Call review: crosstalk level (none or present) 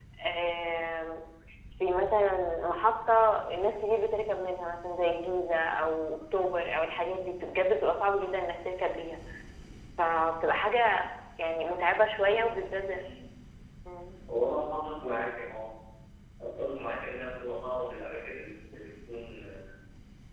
none